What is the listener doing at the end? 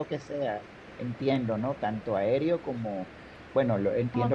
listening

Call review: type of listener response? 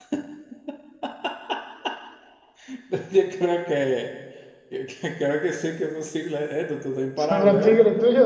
taking over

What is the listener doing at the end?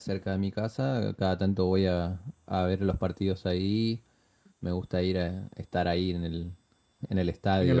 taking over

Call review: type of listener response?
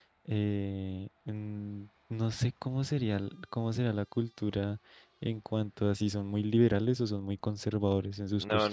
taking over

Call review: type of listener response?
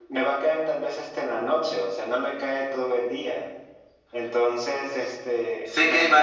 taking over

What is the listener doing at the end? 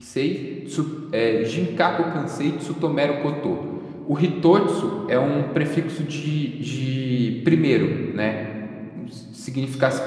listening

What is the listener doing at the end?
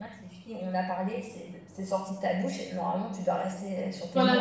taking over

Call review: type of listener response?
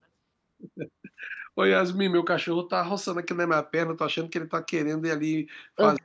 listening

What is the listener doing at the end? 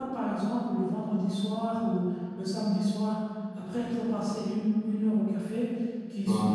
listening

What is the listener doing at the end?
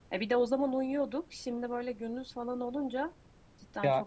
taking over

